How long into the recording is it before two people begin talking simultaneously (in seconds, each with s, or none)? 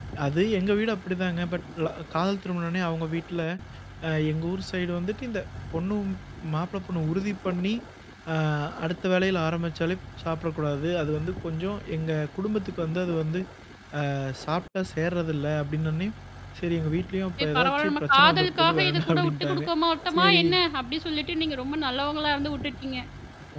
17.4 s